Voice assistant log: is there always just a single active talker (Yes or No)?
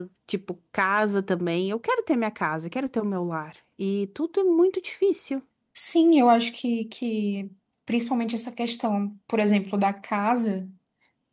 Yes